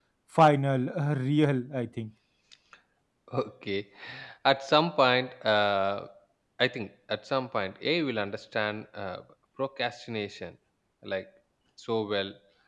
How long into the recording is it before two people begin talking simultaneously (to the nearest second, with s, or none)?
none